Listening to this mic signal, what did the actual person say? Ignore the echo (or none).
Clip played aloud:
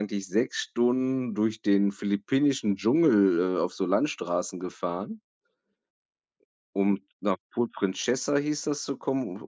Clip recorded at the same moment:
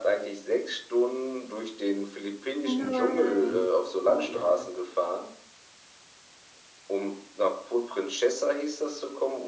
Nein. Oh nein.